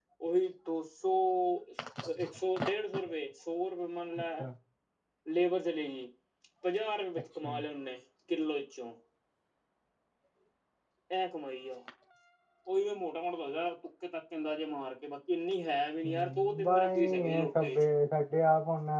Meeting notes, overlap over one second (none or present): present